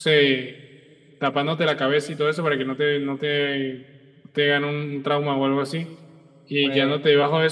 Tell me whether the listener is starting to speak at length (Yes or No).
No